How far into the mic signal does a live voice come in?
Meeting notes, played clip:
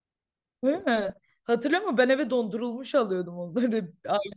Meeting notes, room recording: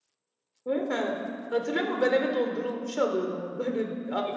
none

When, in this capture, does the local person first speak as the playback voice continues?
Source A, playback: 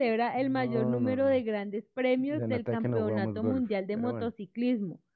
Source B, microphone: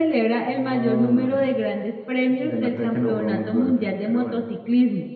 none

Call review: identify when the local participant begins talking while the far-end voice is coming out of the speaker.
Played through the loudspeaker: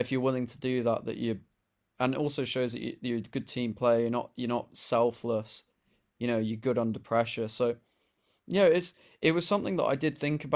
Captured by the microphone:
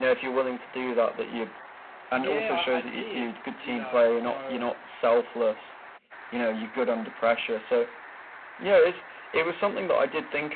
2.1 s

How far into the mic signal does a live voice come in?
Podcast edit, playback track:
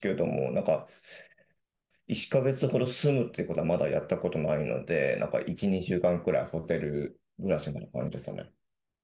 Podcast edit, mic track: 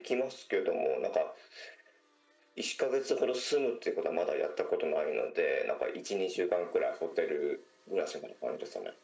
none

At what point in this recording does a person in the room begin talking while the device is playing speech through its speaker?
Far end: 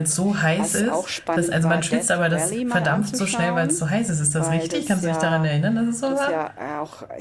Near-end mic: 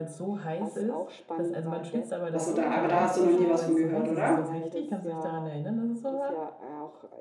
2.3 s

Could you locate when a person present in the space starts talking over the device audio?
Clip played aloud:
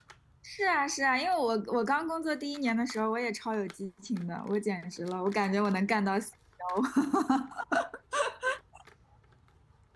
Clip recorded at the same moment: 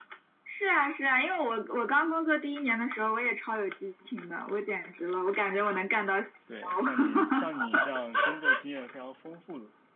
6.5 s

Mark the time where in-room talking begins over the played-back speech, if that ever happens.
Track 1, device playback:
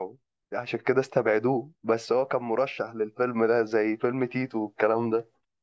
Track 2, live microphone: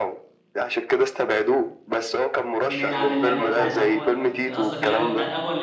2.7 s

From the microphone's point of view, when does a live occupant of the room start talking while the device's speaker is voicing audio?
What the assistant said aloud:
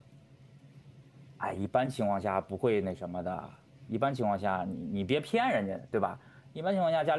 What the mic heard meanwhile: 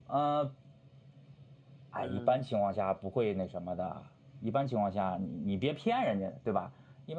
1.9 s

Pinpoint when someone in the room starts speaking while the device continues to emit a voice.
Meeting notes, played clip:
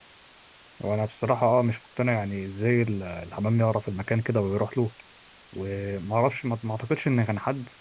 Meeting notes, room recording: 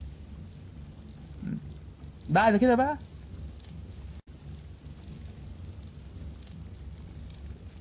1.4 s

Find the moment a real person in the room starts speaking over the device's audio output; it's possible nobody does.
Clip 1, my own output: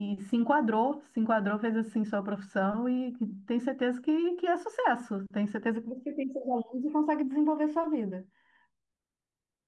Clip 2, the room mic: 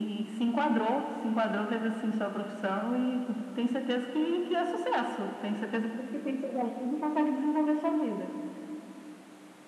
none

